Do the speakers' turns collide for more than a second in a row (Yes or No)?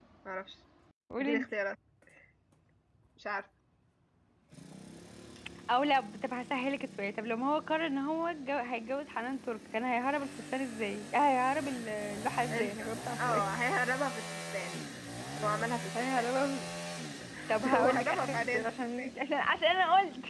Yes